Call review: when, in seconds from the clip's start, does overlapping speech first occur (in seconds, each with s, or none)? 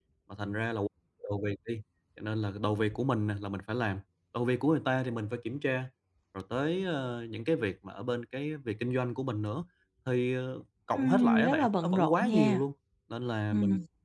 11.0 s